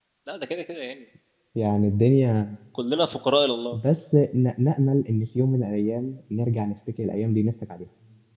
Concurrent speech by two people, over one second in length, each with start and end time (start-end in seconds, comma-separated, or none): none